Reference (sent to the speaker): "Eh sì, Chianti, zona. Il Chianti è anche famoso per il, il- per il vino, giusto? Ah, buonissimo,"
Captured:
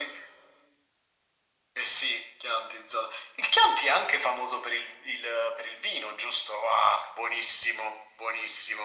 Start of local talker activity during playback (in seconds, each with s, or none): none